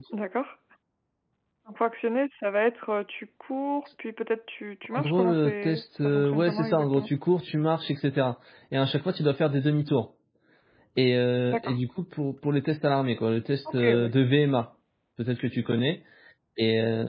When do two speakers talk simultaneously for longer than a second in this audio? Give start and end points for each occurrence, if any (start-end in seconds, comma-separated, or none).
4.9-7.1